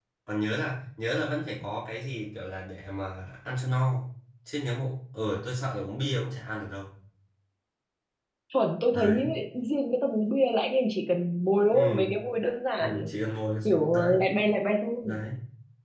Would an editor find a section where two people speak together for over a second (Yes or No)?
No